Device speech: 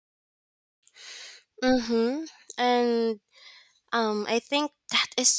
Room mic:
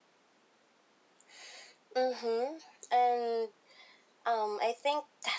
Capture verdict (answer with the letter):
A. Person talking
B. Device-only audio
B